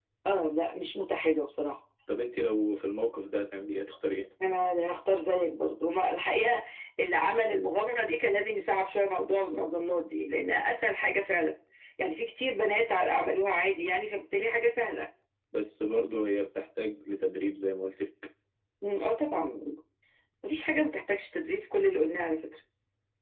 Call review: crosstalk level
none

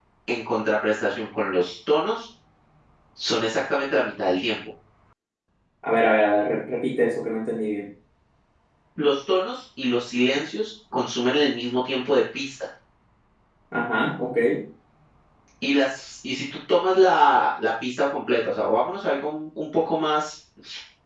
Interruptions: none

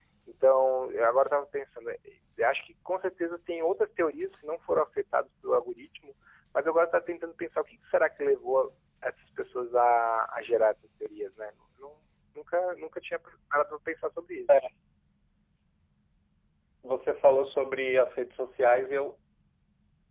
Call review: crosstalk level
none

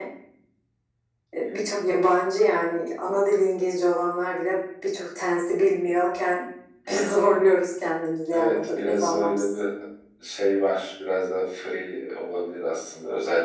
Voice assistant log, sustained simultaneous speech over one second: present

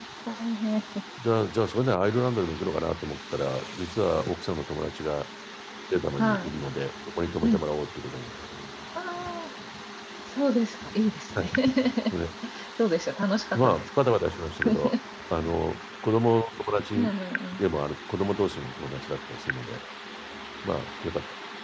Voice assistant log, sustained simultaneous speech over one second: none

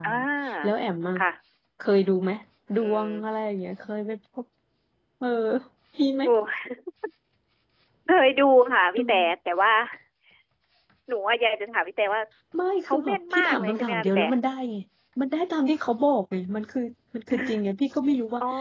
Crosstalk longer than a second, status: present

